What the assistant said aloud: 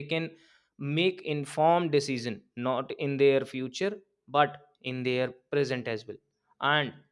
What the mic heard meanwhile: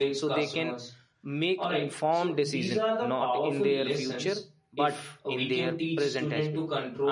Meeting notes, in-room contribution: present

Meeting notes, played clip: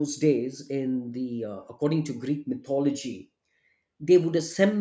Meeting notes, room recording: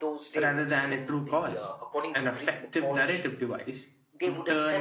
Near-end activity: present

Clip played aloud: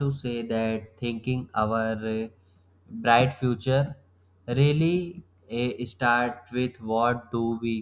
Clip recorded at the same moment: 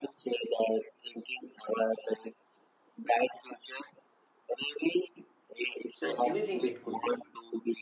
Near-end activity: present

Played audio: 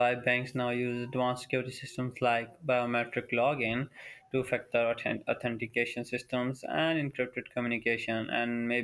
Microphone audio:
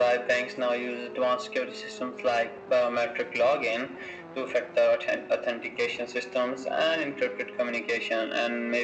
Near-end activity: none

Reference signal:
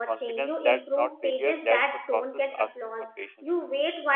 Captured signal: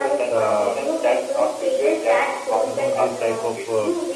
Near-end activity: present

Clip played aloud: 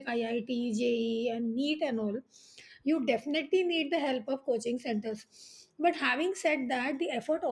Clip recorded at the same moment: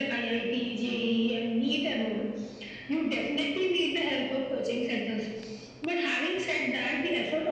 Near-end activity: none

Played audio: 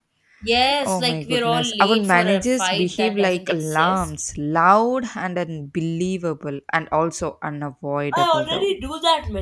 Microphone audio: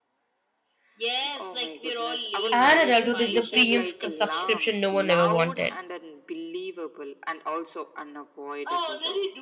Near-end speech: present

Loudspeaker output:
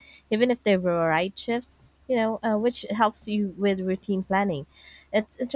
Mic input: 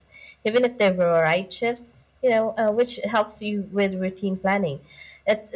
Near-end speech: none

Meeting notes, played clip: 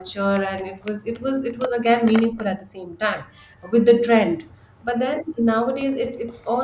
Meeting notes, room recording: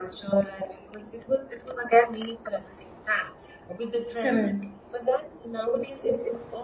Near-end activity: present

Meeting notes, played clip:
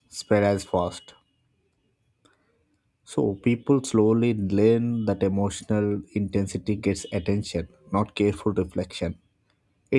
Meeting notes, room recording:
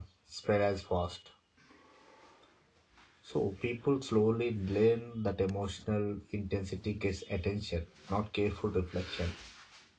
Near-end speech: none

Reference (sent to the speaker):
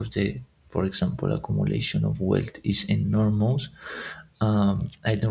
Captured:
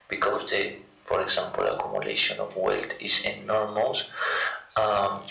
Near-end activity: none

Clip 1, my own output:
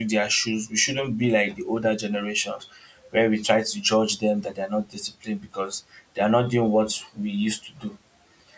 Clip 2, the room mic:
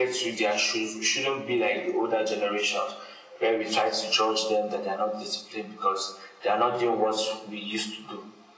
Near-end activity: none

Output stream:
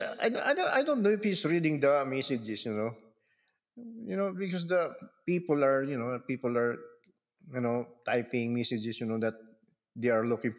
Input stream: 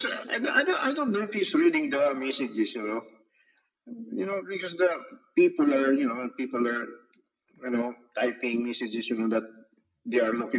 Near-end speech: none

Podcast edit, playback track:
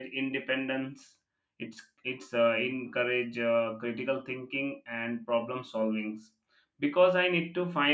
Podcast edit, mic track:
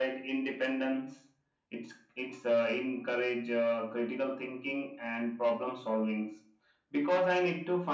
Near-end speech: none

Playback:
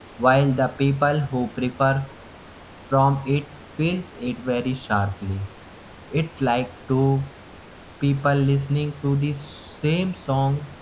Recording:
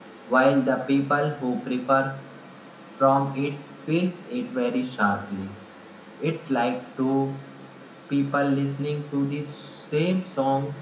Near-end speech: none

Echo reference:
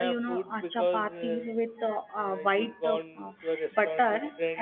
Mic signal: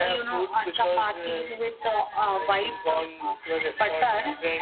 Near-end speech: none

